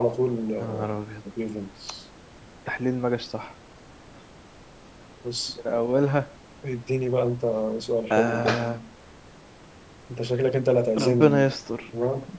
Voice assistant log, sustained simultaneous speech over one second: none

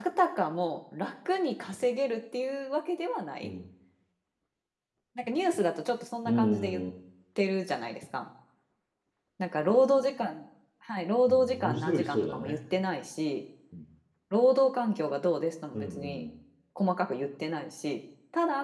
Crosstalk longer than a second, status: present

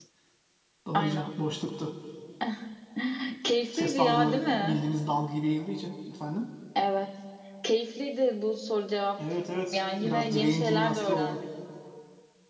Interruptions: present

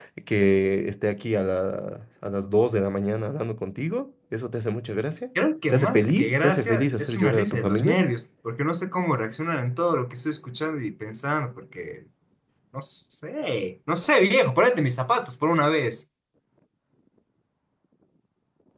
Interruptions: present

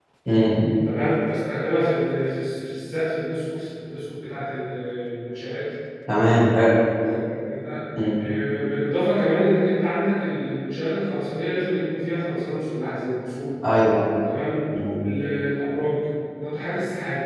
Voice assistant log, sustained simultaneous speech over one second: none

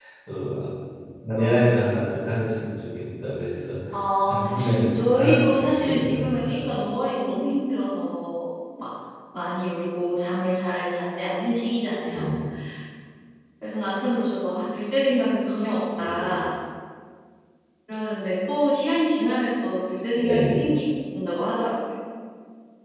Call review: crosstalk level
present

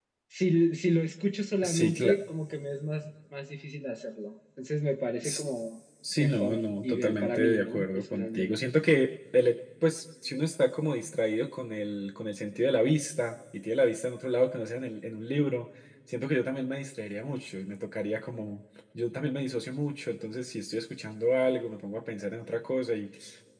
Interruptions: present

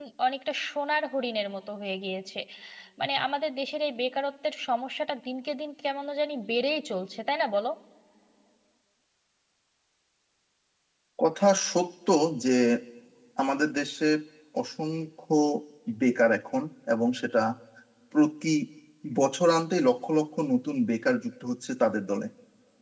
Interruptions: none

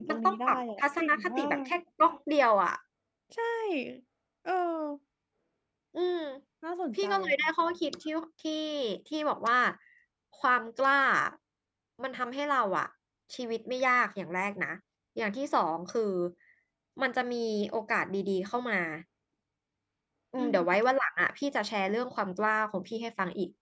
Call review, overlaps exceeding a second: present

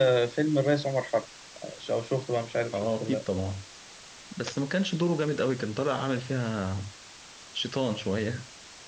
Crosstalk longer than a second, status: none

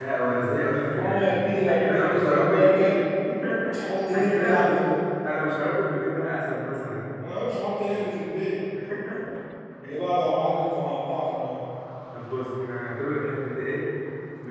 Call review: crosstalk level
present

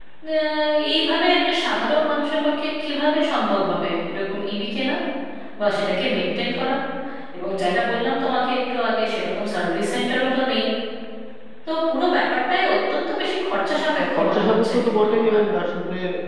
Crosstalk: present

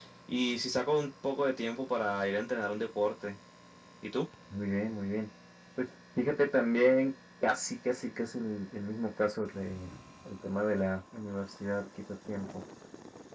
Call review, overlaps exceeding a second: none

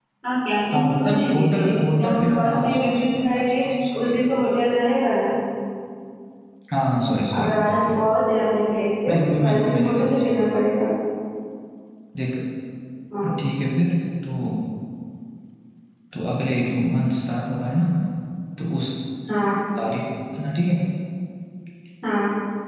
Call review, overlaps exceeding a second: present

